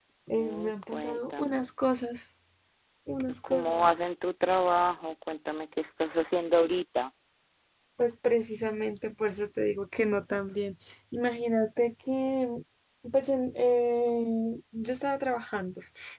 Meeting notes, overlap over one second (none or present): present